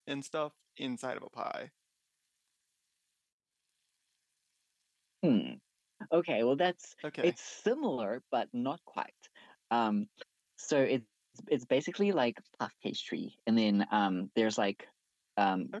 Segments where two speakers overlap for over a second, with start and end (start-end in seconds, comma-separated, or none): none